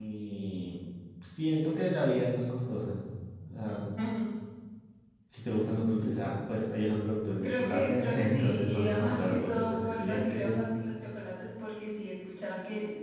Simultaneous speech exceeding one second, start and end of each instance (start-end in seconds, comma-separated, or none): 7.4-10.6